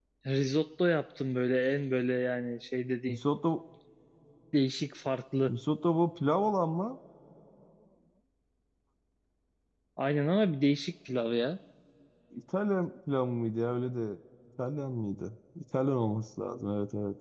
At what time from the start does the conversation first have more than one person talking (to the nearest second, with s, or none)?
none